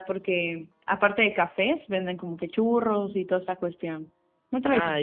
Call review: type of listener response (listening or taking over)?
taking over